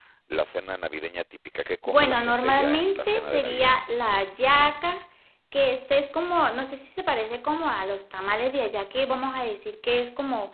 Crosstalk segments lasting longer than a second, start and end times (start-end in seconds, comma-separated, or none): 1.9-3.7